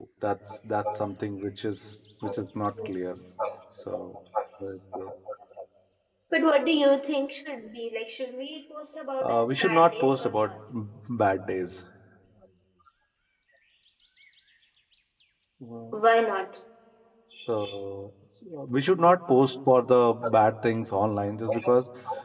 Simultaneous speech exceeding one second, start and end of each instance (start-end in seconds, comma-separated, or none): 9.2-10.6